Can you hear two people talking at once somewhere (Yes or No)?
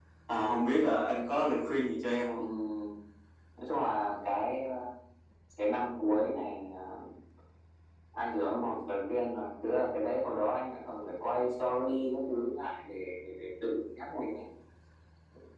No